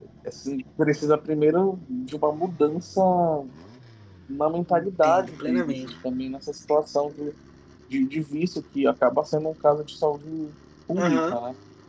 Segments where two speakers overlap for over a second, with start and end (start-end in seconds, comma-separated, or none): 4.7-5.9